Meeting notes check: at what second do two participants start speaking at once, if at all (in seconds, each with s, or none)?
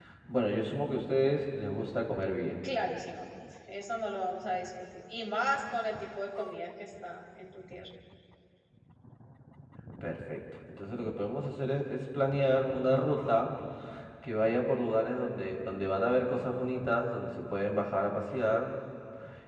none